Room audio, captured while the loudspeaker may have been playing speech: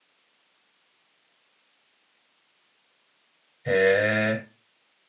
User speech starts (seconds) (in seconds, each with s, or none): 3.6 s